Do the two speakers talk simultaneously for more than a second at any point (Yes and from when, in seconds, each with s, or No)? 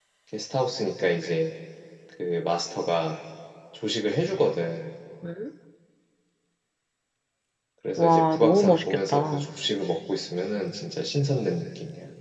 Yes, from 8.0 s